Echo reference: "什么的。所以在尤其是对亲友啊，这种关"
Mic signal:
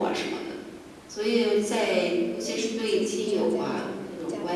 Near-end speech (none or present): present